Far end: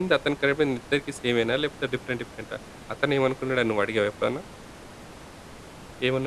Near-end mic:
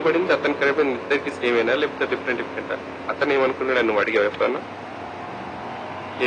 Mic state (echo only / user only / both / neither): echo only